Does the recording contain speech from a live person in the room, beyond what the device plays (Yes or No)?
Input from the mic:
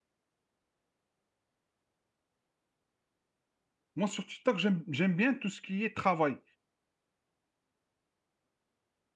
Yes